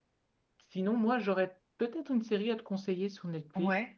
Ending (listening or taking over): listening